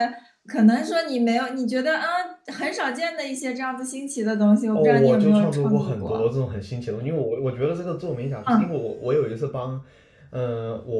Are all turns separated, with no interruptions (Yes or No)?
No